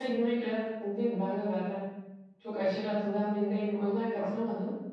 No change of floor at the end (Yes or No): Yes